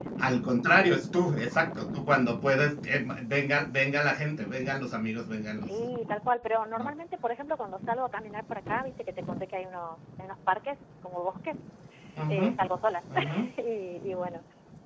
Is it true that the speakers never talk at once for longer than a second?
Yes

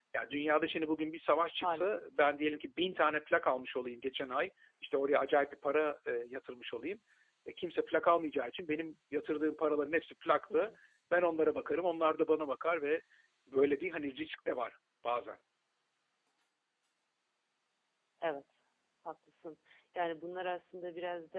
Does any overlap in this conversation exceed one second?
No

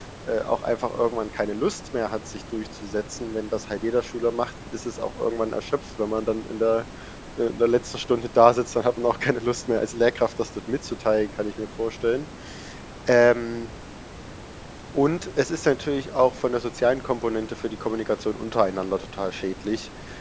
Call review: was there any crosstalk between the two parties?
No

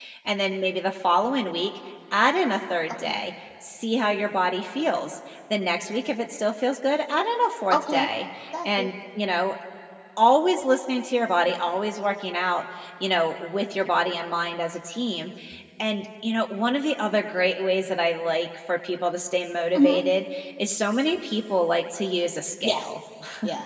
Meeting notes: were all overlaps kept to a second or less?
Yes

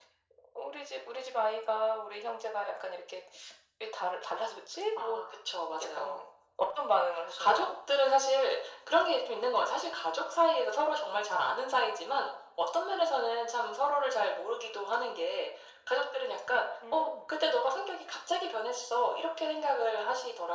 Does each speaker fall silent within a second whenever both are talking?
Yes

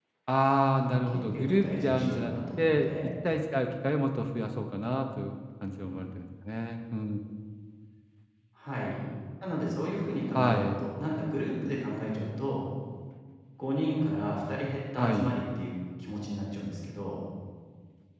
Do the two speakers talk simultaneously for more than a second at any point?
Yes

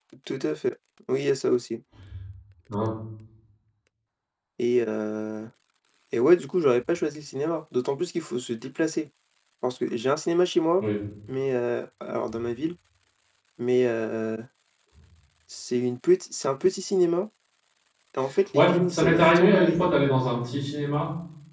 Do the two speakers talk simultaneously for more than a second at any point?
Yes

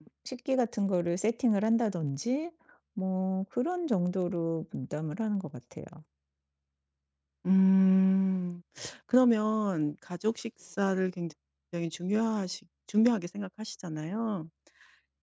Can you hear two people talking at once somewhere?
No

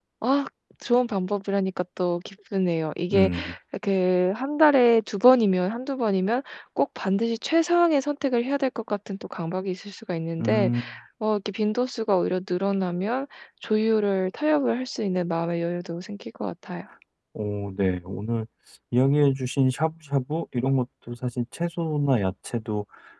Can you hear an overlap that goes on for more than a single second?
No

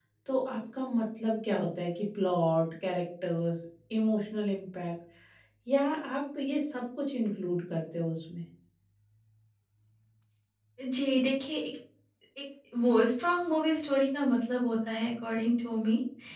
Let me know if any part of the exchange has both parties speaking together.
No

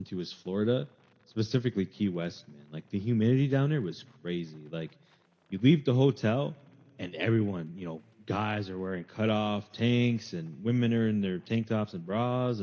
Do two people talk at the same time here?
No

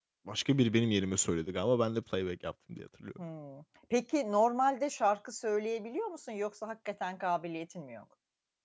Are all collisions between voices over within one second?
Yes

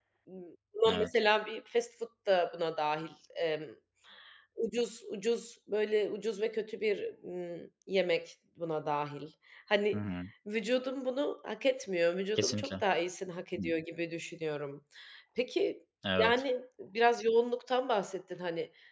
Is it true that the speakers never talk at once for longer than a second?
Yes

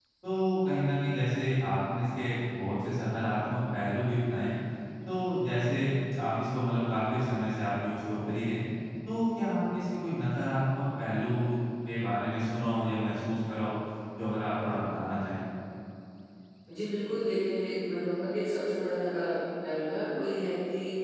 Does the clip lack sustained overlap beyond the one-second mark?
Yes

